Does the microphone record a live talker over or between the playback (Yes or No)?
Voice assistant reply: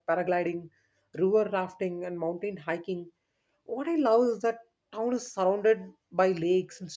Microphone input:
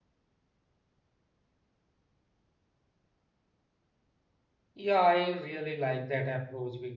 Yes